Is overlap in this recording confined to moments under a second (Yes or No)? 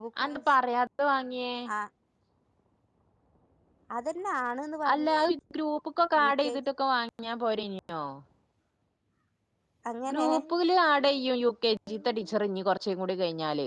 Yes